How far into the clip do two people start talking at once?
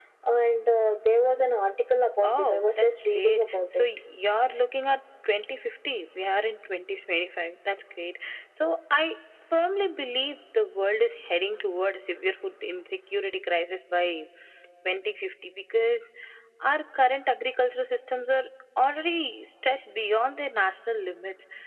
2.2 s

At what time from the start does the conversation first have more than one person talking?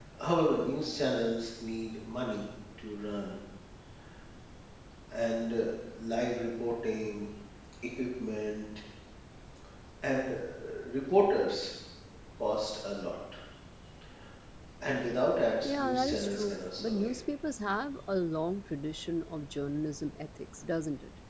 15.6 s

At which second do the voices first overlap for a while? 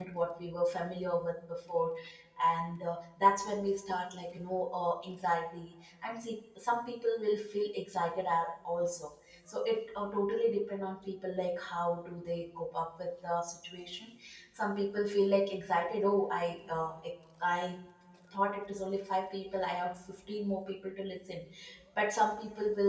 none

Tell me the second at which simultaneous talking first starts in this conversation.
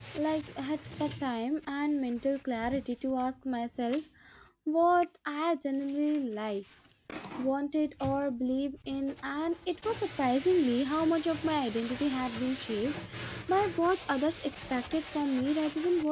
none

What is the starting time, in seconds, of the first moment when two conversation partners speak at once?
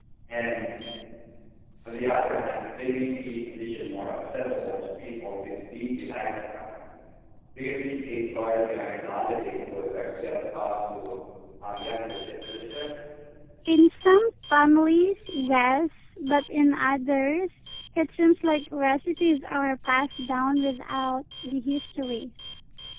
none

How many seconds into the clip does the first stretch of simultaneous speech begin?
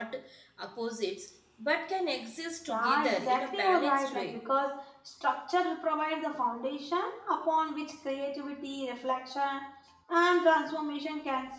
2.7 s

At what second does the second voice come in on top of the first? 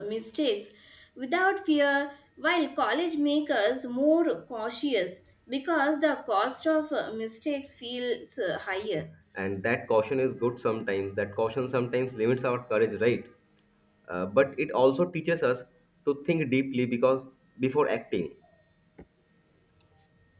none

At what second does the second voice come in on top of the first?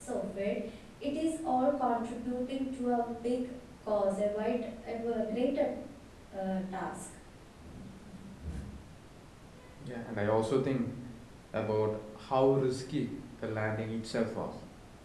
none

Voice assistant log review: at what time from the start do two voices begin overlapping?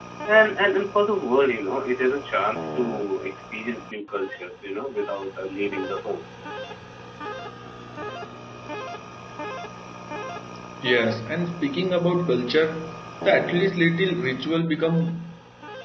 none

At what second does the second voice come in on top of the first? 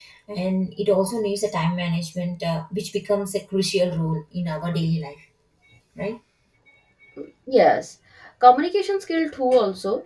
none

